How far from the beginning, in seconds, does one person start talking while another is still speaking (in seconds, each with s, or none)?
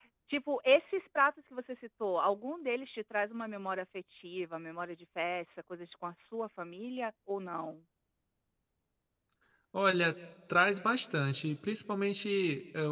none